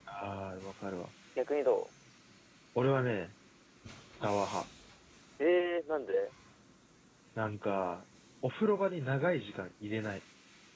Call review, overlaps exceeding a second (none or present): none